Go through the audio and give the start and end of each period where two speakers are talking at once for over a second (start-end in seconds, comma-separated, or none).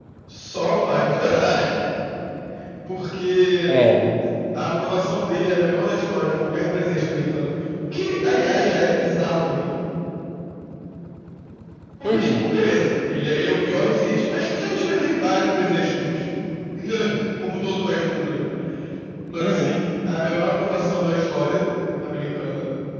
none